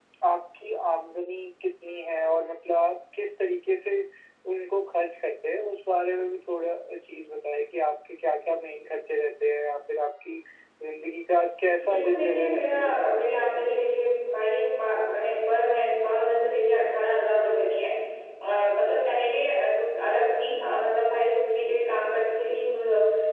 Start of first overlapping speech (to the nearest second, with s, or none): 12 s